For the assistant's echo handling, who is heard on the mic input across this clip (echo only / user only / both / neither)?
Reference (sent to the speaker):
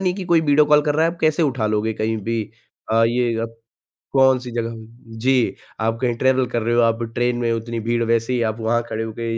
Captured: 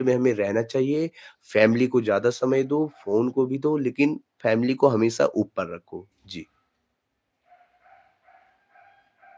user only